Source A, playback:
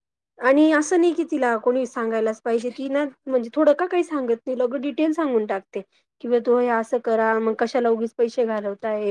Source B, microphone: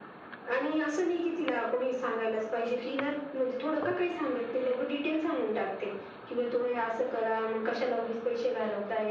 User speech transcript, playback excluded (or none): none